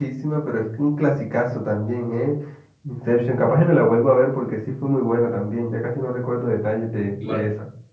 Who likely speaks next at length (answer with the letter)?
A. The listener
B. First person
A